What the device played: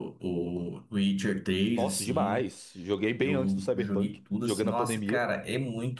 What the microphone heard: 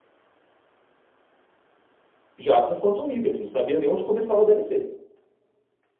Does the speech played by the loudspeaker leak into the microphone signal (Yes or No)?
No